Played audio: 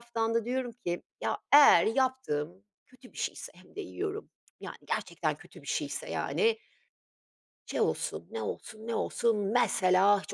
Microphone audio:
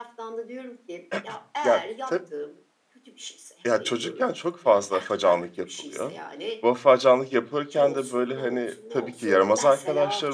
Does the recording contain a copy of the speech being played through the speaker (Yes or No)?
Yes